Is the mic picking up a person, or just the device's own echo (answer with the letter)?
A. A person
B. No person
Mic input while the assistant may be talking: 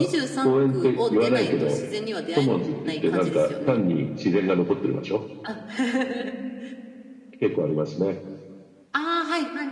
A